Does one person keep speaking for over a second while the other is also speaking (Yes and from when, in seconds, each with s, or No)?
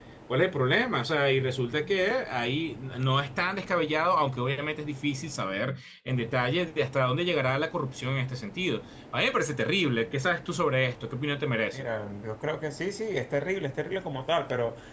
No